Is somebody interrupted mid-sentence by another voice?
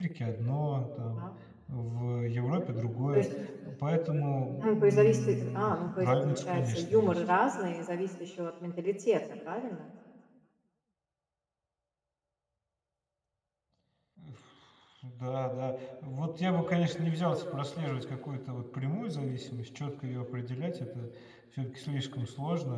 Yes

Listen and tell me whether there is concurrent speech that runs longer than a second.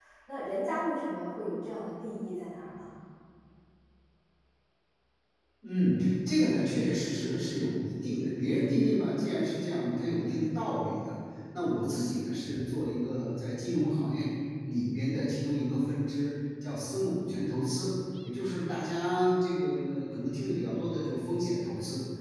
No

